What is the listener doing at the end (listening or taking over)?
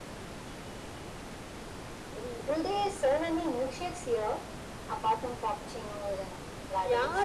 taking over